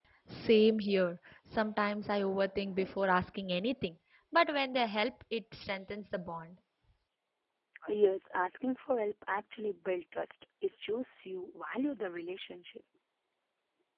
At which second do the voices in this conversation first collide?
none

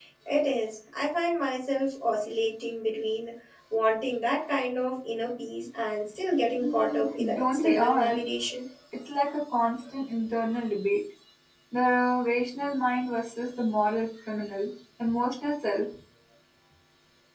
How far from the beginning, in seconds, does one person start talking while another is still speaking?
6.6 s

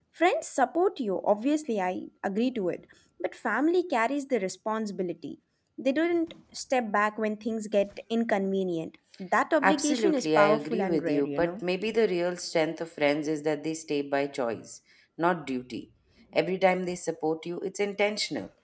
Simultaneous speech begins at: 9.6 s

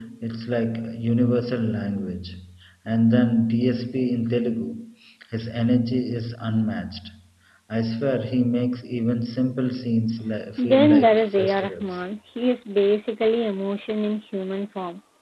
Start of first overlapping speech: 10.6 s

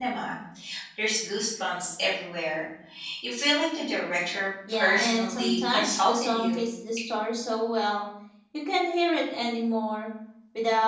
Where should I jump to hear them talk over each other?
4.7 s

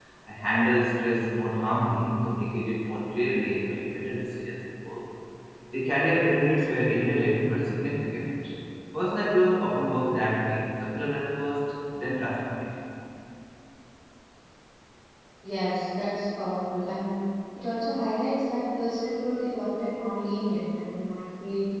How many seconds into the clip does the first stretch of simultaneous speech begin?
none

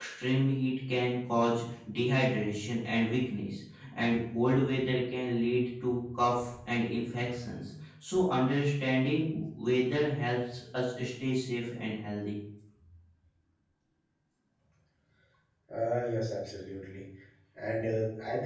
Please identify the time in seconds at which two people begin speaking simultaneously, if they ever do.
none

